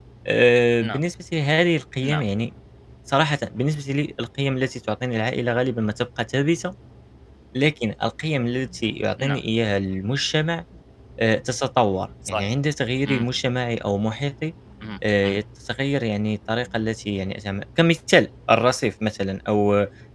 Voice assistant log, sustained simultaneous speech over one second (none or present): none